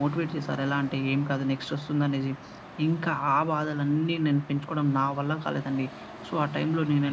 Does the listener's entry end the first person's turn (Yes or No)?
No